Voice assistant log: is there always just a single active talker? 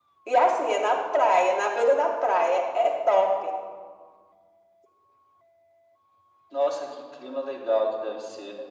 Yes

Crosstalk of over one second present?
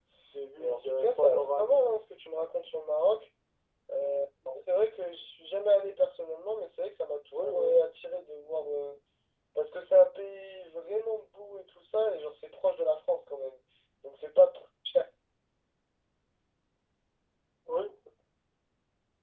Yes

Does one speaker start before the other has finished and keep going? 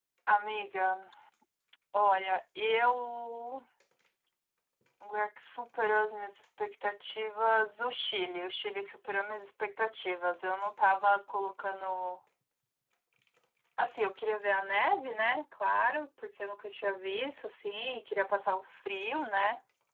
No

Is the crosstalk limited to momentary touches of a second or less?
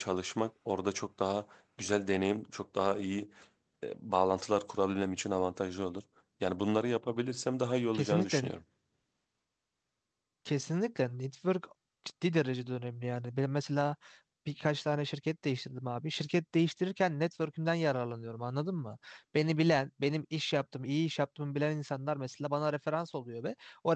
Yes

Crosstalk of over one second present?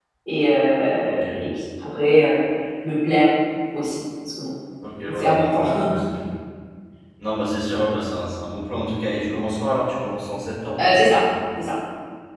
No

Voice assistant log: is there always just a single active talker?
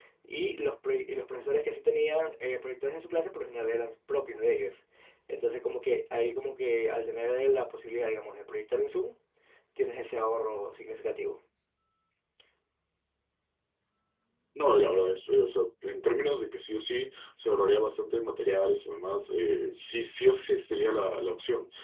Yes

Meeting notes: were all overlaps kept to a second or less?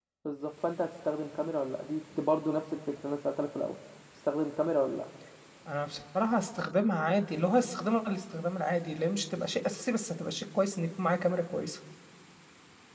Yes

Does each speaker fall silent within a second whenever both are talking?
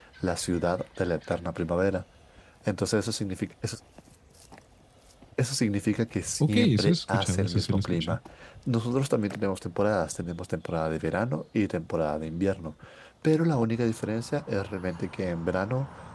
No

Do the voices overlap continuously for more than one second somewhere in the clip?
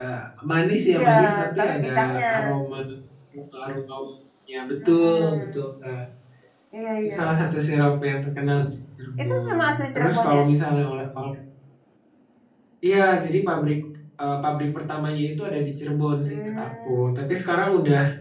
Yes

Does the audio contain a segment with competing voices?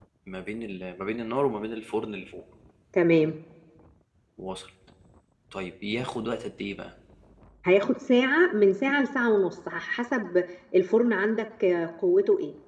No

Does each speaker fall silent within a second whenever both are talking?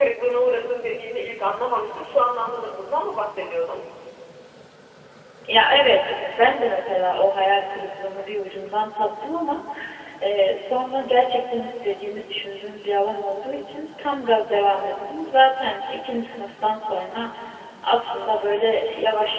Yes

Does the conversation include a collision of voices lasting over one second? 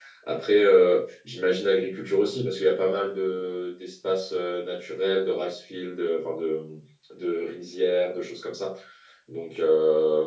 No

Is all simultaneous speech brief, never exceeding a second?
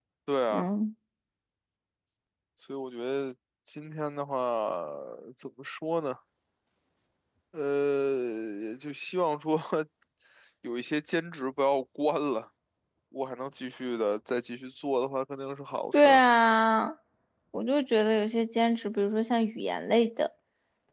Yes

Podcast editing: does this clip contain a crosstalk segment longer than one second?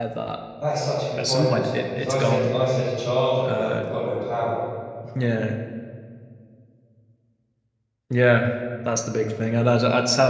Yes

